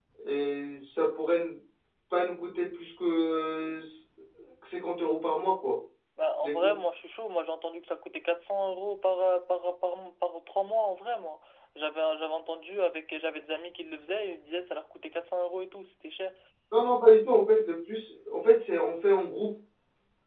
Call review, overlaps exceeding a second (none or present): none